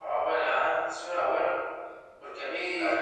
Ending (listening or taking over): listening